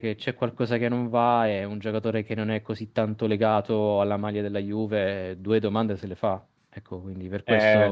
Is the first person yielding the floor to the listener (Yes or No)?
Yes